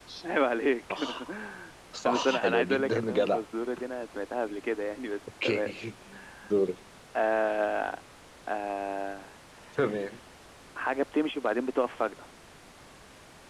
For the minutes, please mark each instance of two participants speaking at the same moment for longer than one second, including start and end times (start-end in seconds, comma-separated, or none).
2.0-3.4